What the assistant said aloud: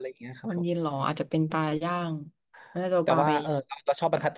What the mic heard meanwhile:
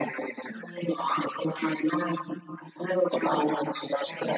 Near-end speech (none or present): none